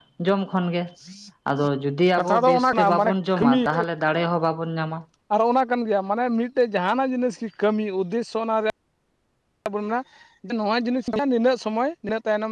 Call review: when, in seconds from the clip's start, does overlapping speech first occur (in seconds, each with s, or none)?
2.2 s